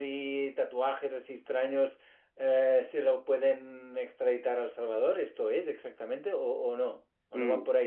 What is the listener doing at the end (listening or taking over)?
taking over